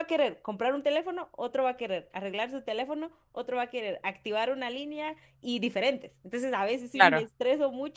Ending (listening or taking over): listening